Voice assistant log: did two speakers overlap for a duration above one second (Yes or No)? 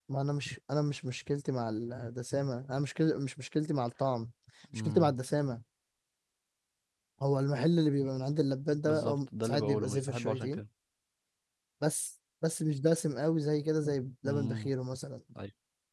Yes